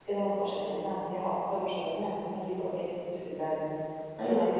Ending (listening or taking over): listening